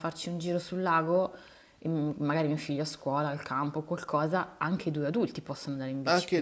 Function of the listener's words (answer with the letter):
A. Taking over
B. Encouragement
A